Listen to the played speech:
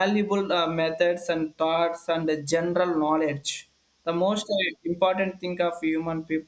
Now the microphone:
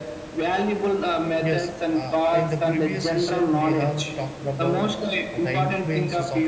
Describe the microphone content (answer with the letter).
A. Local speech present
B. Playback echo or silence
A